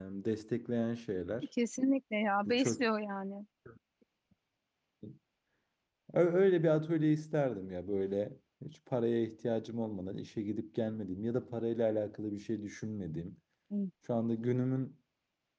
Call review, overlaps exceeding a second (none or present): none